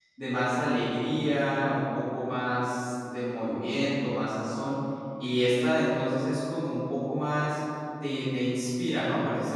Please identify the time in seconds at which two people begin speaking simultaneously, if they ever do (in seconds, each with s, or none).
none